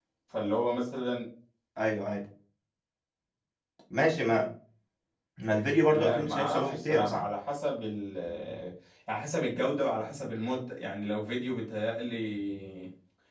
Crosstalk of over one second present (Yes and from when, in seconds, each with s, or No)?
Yes, from 5.9 s